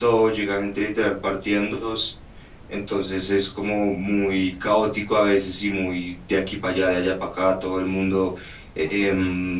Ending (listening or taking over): listening